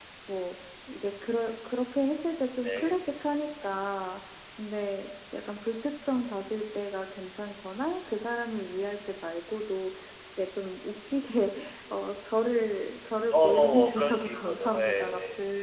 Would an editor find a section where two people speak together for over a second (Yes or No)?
Yes